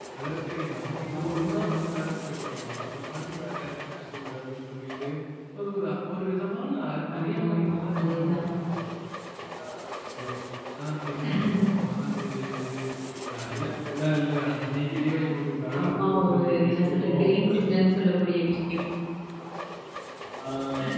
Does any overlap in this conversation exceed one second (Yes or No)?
Yes